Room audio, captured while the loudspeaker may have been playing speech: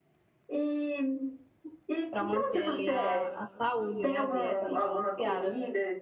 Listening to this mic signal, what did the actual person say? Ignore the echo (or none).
pra manter ali a, a saúde, né? A dieta ali balanceada.